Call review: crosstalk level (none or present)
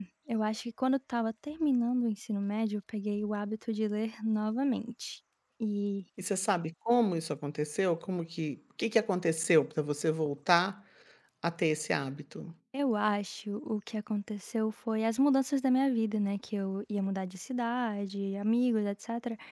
none